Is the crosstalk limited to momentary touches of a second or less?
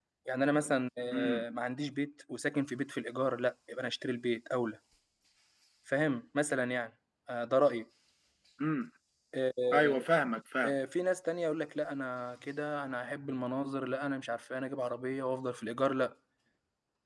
Yes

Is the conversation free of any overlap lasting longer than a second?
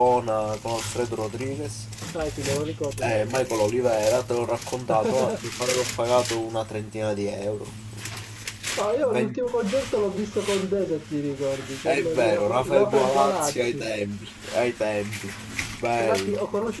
No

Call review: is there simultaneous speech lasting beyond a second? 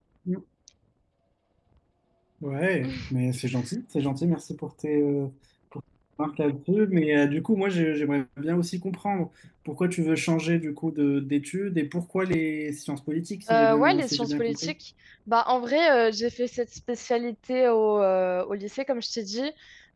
Yes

